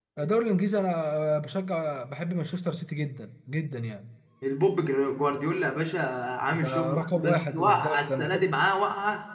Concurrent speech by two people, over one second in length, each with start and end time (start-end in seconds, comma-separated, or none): 6.6-8.5